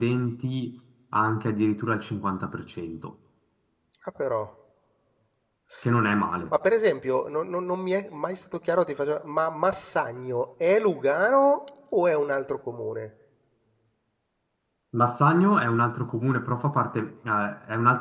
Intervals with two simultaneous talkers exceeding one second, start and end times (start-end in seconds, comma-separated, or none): none